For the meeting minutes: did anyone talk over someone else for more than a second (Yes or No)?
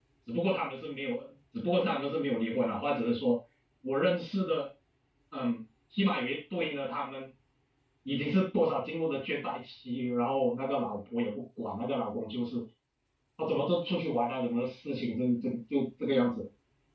No